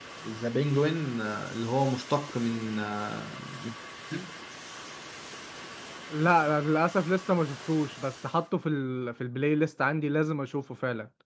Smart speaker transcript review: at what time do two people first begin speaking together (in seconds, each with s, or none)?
none